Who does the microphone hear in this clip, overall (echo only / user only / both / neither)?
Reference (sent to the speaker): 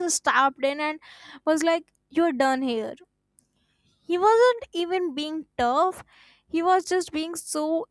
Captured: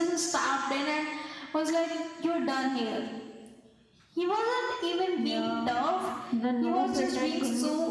both